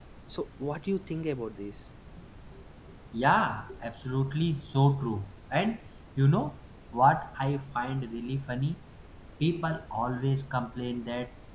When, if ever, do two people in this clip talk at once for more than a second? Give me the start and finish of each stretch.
none

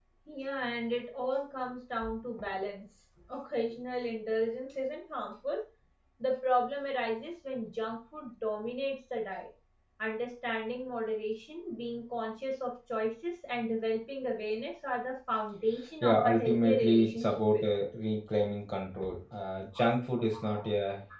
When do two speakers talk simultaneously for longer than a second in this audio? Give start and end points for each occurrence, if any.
16.0-17.9

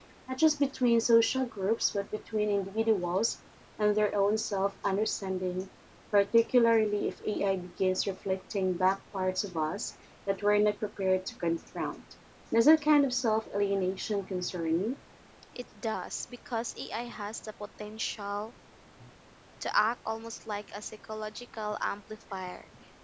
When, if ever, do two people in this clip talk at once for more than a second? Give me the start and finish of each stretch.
none

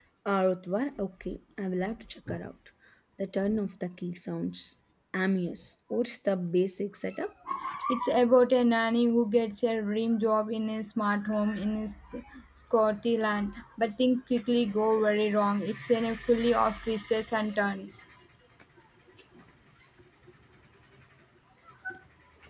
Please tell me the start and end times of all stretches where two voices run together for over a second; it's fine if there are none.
none

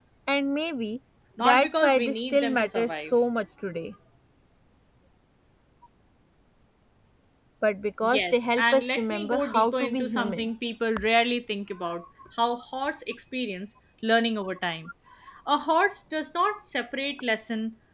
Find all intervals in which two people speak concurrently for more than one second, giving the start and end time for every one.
1.4-2.9, 8.0-10.5

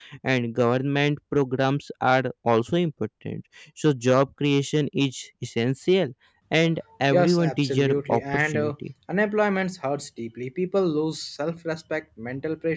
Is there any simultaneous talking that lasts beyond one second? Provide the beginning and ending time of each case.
7.1-8.7

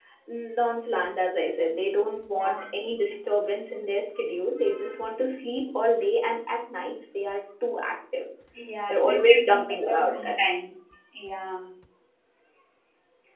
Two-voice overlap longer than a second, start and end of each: 8.9-10.6

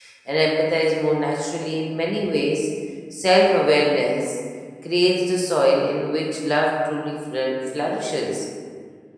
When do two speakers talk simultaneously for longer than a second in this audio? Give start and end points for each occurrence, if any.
none

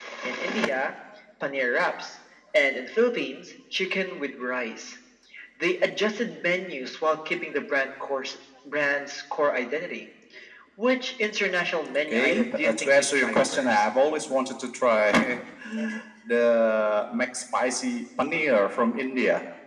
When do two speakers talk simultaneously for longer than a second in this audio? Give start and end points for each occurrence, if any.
12.1-13.8

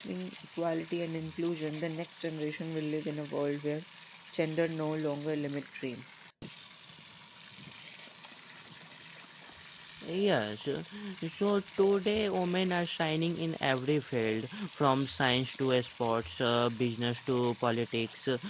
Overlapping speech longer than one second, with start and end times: none

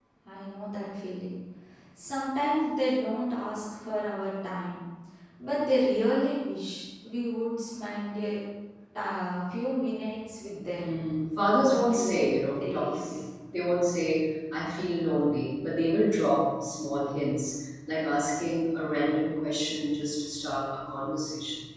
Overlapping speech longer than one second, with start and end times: 11.6-13.2

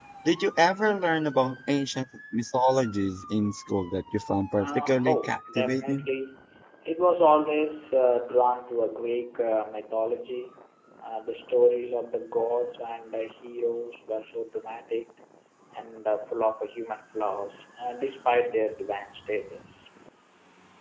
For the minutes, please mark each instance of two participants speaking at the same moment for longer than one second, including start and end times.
4.6-6.1

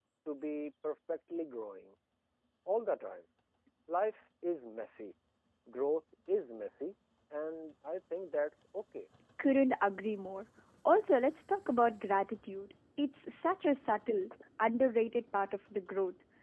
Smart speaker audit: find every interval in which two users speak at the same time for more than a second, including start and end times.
none

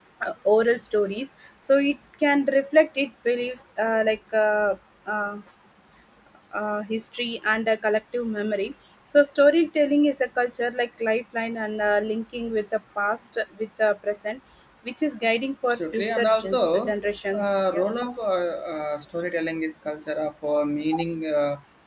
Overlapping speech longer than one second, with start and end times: 15.7-16.9

